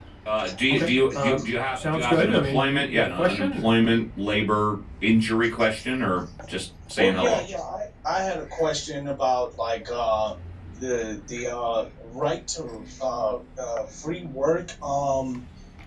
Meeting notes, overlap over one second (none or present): present